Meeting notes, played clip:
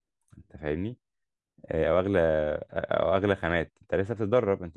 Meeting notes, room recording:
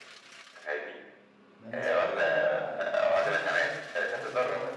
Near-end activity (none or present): present